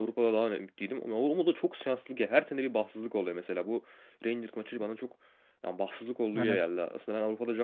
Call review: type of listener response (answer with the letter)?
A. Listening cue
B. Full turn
A